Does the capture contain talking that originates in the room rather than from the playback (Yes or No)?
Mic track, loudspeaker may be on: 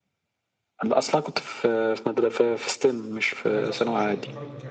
Yes